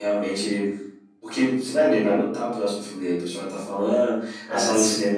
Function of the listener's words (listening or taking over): listening